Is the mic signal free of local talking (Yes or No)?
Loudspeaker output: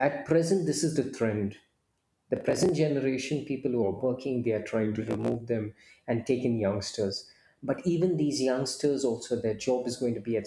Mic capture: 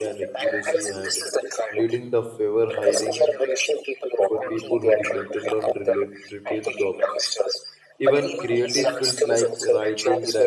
No